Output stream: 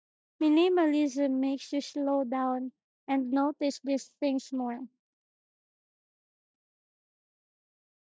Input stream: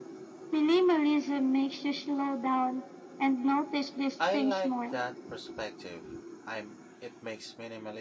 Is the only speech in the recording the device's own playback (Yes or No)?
No